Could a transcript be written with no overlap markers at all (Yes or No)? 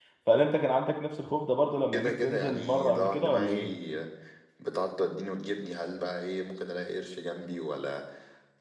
No